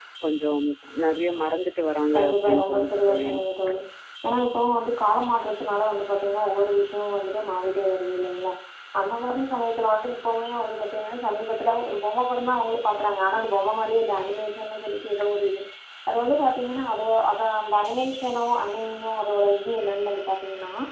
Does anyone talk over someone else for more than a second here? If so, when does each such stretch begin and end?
2.1-3.4

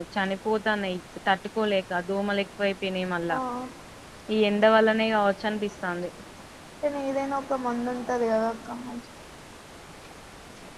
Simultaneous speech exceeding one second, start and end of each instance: none

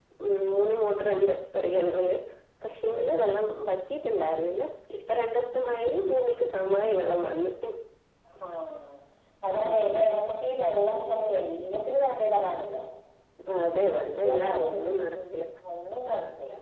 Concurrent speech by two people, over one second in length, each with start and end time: 13.8-15.2

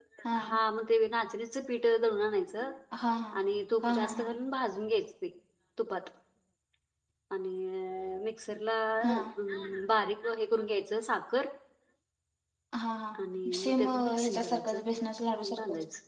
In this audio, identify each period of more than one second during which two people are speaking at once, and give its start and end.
13.6-14.8

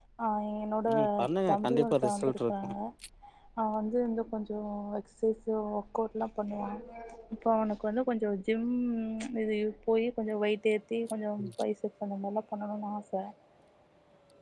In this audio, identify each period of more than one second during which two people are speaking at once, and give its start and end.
1.5-2.7

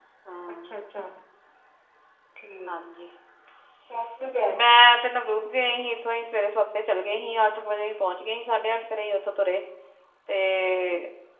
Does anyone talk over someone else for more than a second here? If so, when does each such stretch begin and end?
none

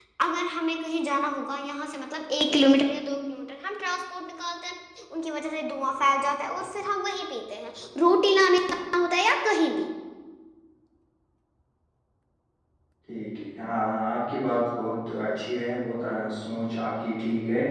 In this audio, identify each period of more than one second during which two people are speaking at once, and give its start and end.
none

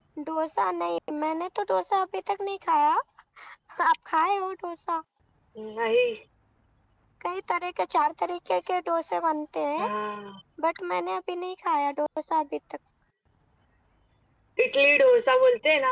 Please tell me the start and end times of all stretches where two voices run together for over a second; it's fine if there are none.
none

